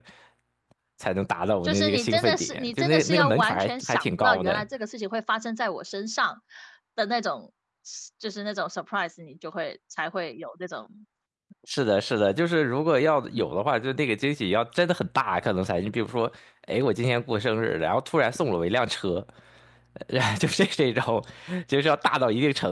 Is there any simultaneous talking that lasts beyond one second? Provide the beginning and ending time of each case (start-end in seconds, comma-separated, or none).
1.6-4.6